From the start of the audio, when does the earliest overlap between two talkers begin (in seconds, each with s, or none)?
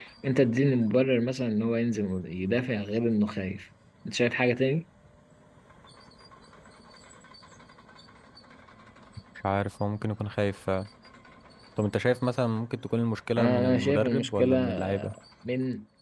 13.4 s